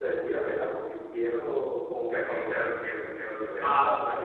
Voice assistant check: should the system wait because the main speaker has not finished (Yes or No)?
No